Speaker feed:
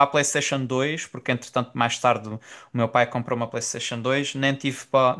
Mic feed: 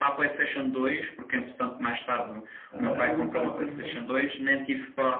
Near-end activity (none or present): present